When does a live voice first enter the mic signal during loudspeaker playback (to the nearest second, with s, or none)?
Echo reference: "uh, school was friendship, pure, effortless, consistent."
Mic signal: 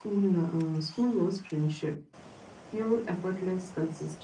none